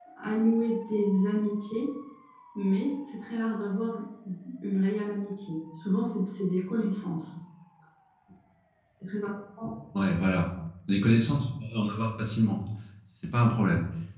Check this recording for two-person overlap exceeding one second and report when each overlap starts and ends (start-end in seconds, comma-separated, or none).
none